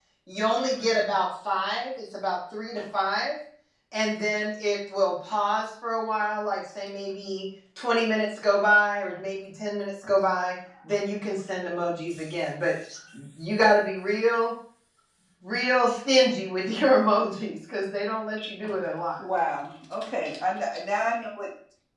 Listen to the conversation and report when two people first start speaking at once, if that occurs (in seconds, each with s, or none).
none